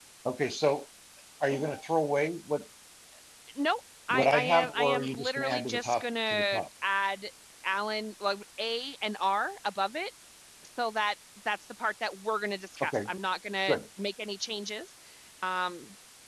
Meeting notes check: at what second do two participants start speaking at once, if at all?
4 s

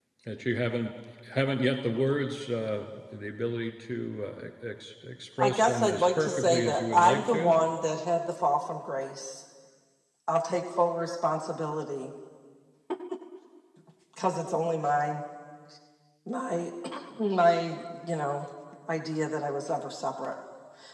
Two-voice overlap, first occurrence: 5 s

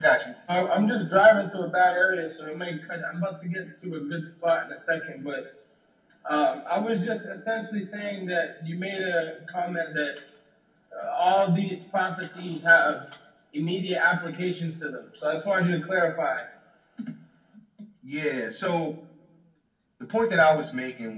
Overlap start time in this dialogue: none

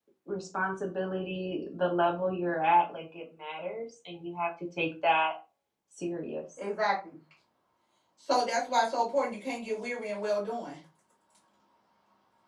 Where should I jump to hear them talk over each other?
none

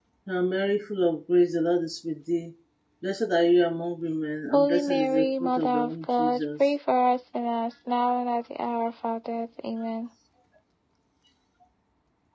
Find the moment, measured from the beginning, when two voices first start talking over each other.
5 s

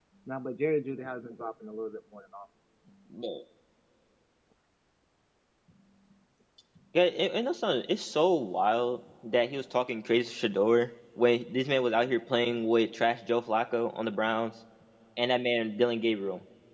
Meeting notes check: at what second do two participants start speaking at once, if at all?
none

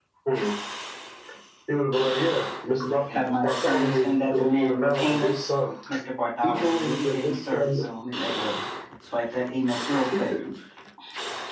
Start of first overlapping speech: 3 s

